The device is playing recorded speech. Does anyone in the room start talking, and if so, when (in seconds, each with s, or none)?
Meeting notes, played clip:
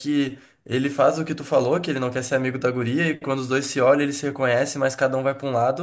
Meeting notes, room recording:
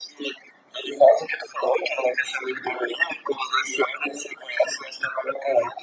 none